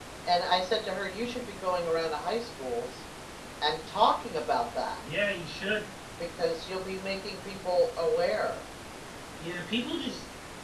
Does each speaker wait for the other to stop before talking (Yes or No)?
Yes